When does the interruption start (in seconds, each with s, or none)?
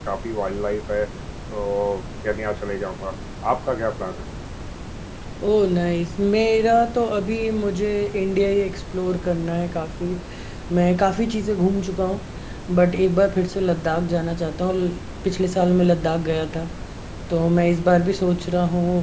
none